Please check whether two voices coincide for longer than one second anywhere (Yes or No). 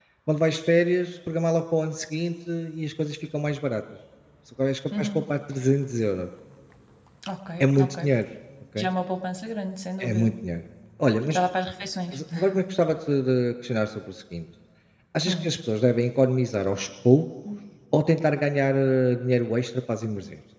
No